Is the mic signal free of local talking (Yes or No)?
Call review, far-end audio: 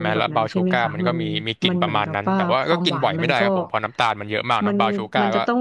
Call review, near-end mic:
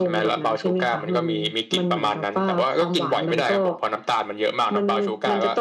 Yes